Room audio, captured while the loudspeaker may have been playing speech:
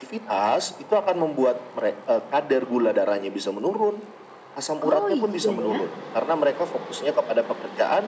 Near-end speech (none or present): present